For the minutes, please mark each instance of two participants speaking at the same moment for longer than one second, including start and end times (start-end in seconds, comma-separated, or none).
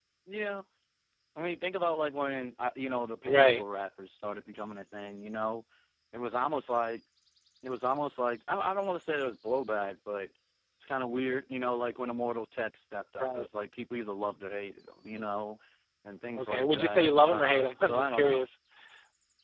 16.4-18.5